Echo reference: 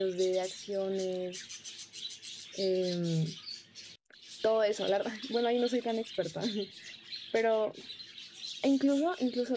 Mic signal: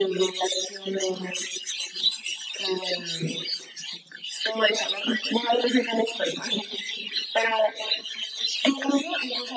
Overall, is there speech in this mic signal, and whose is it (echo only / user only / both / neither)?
echo only